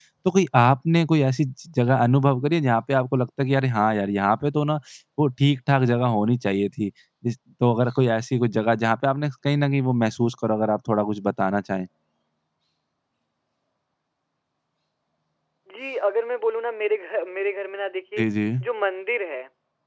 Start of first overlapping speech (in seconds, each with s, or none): none